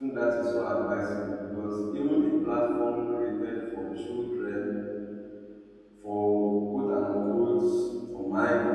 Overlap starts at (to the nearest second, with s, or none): none